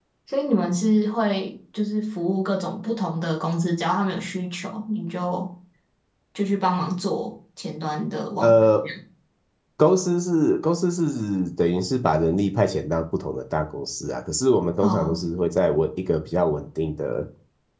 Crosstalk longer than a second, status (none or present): none